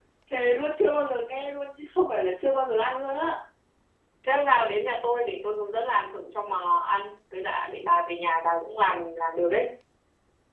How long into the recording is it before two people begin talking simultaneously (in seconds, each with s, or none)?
none